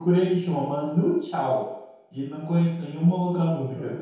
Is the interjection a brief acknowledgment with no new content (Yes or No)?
No